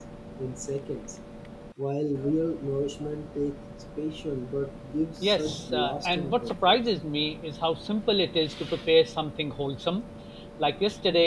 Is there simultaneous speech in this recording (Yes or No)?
Yes